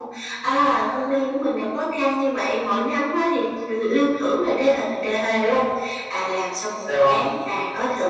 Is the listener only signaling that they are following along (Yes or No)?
Yes